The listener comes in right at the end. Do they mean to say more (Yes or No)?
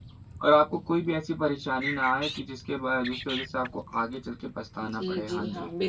Yes